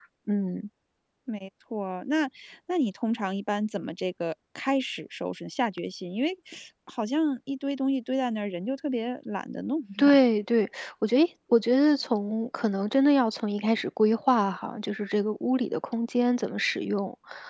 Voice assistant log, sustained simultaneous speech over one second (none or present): none